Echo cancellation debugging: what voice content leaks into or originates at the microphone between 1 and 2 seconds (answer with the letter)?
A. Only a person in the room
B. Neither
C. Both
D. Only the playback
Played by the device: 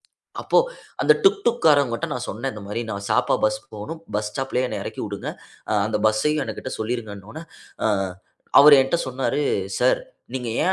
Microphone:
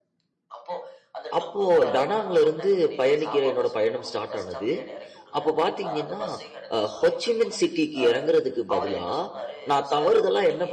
C